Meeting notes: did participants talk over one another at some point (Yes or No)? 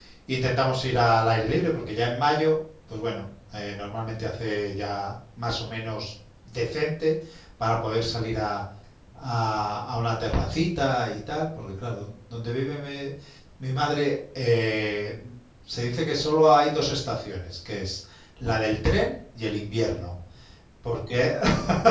No